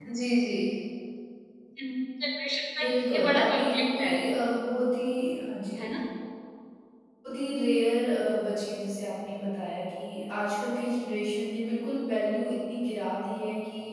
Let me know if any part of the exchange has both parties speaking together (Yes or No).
Yes